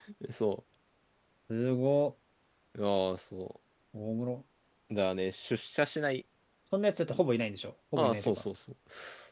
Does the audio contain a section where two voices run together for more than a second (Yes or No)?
No